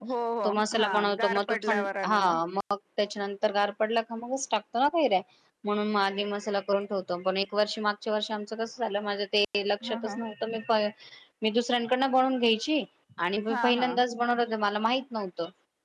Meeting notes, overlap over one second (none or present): present